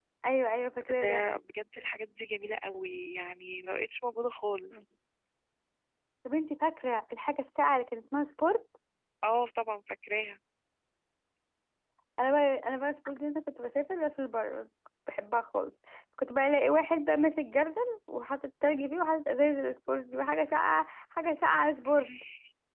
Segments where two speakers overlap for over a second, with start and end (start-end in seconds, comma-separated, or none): none